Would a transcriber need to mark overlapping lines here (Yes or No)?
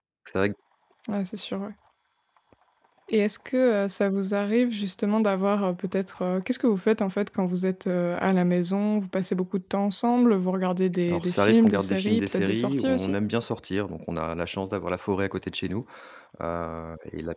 Yes